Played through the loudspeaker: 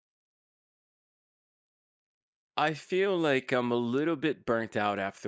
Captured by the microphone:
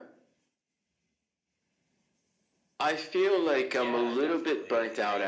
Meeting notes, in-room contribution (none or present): present